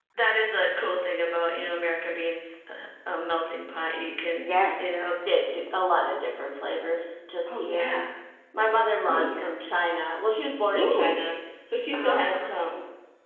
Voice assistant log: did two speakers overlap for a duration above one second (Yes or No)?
No